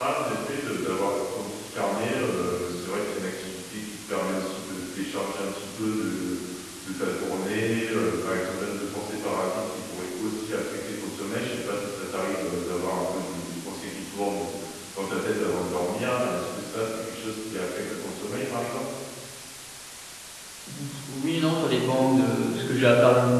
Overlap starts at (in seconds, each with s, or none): none